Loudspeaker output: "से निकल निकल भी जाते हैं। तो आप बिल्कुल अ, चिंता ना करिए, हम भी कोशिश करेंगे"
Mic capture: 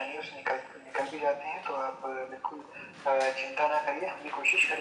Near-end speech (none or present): none